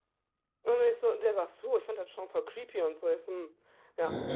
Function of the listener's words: listening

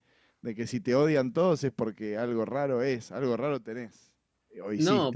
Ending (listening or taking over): taking over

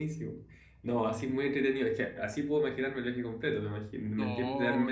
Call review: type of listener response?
listening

